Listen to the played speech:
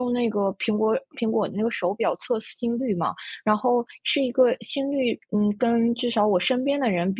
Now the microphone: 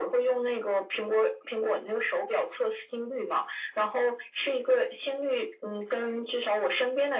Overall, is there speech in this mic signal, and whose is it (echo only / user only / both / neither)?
echo only